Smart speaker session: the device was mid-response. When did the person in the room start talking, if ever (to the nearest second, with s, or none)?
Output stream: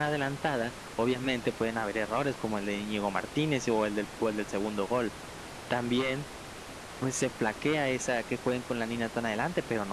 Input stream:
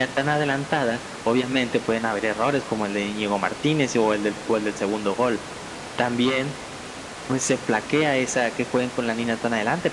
none